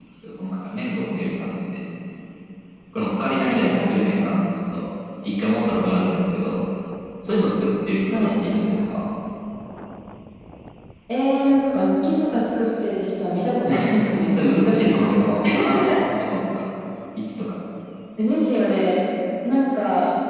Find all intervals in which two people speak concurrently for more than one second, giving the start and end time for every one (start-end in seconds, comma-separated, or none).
none